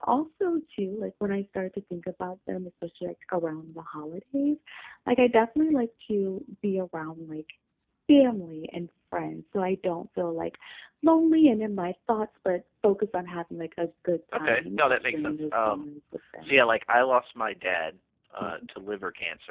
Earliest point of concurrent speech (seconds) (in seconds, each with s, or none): 14.3 s